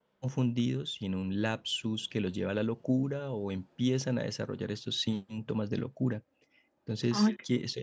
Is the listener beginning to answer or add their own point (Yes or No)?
No